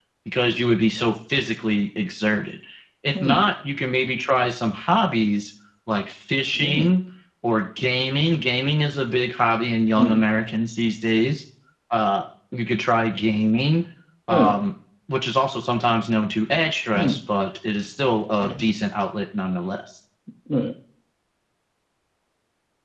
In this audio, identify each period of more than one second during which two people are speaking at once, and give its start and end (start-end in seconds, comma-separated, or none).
none